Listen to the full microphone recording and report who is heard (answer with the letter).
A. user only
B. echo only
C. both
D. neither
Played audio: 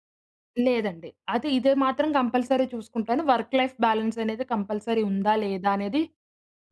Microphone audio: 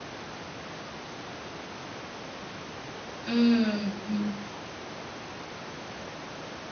A